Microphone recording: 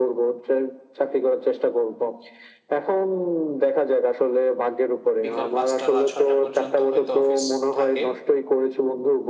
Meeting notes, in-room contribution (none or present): present